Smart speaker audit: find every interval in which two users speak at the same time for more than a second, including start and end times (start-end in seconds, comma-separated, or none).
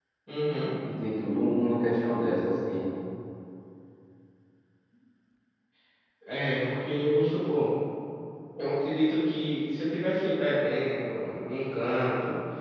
none